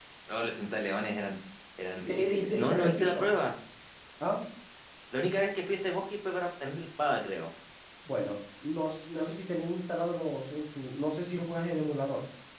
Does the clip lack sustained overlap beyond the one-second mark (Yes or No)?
No